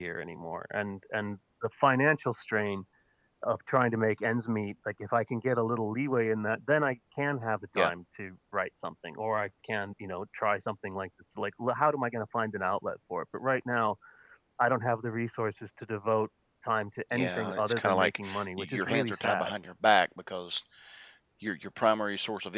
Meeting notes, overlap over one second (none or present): present